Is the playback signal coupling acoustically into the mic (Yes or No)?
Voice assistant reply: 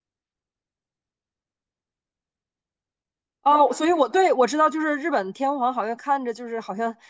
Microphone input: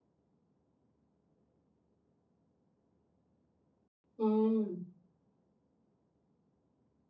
No